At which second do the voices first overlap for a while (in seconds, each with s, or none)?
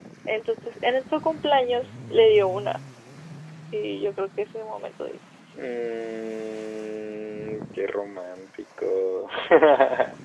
none